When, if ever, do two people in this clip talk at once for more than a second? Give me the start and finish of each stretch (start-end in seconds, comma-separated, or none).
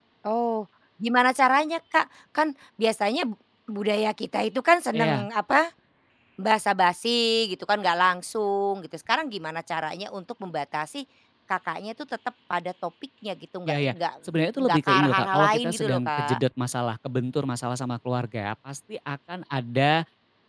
14.6-16.4